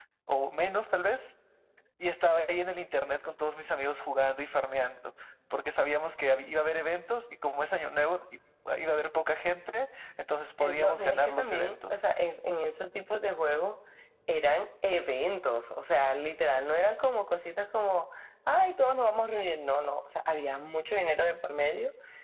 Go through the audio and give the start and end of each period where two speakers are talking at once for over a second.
10.6-12.0

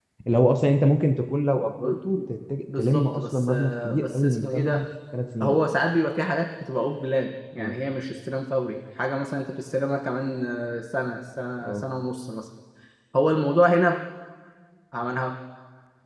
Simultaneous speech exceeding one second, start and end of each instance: 2.8-4.8

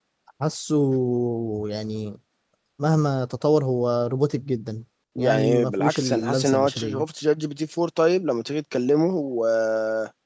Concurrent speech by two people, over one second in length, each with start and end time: 5.2-7.0

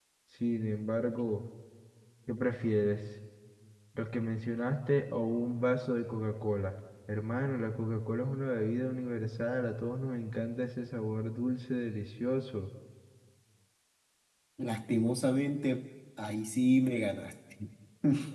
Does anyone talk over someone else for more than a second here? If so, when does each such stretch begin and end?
none

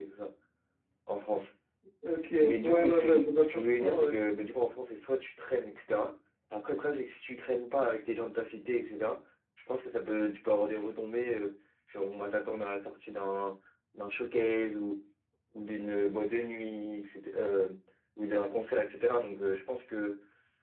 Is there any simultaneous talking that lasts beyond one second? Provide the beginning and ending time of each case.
2.4-4.1

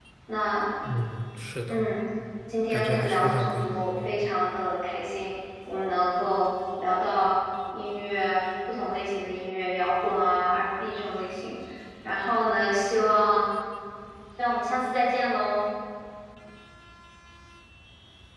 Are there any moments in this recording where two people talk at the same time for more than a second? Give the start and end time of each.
2.7-3.9

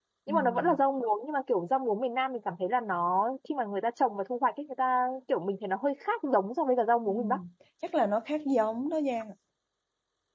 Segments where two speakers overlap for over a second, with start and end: none

